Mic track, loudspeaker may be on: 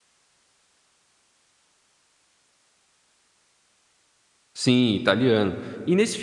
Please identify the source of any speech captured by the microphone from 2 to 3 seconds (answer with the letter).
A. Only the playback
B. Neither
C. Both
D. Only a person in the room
B